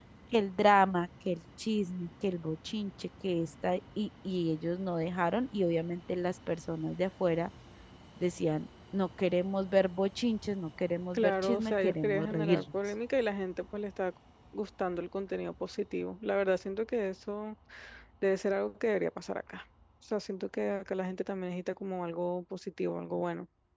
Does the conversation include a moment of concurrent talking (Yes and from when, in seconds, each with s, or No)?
Yes, from 11.1 s